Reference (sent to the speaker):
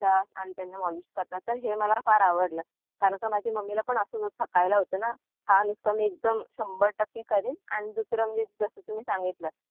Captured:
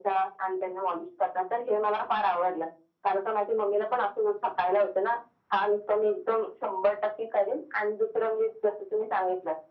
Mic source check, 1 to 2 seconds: echo only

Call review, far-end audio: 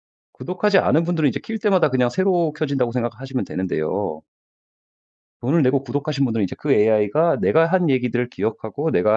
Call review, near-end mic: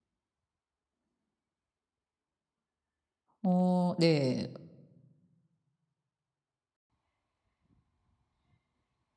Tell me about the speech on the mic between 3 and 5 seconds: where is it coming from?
user only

